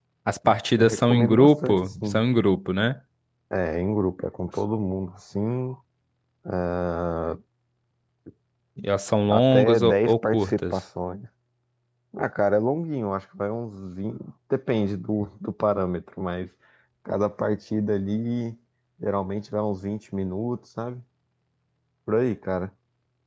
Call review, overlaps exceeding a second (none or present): present